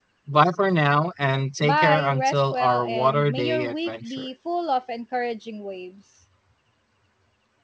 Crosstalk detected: Yes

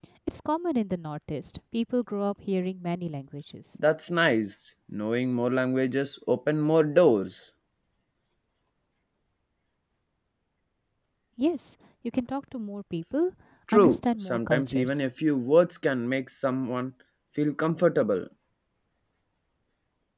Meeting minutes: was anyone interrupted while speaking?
Yes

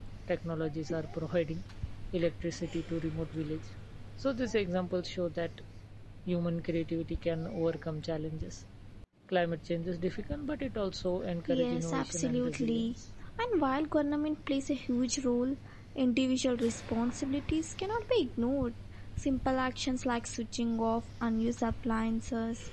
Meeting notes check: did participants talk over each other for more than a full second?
Yes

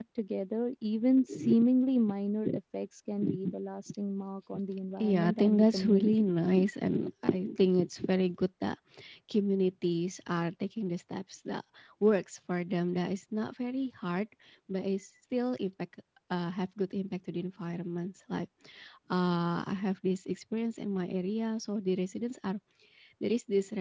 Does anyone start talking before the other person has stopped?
Yes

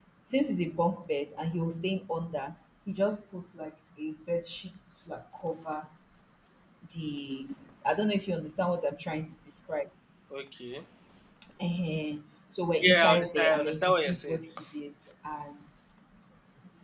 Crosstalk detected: Yes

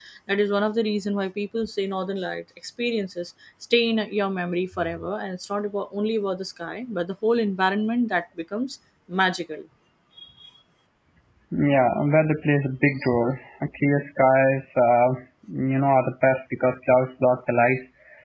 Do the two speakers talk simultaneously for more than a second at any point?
No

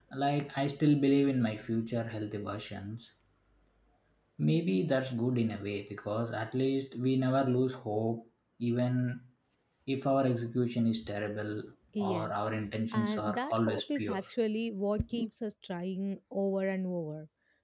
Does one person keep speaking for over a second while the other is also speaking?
Yes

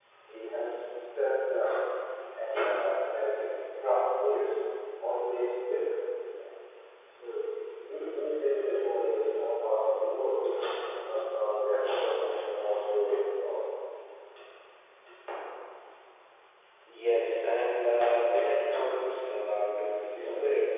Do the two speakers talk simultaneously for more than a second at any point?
No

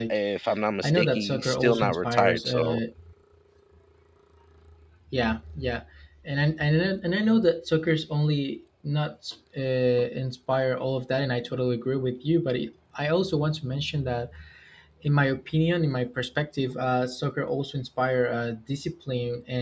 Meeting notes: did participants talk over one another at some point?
Yes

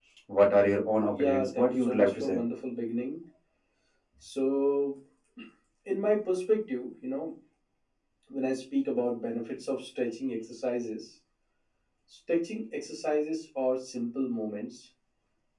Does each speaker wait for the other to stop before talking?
No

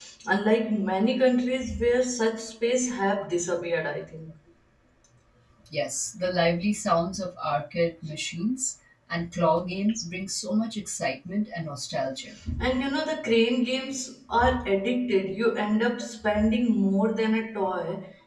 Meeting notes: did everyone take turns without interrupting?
Yes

